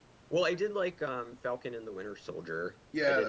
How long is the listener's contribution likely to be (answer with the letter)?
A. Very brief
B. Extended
B